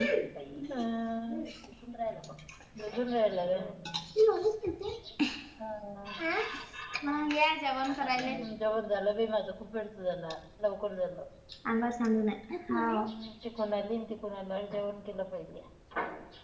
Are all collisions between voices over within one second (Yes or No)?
Yes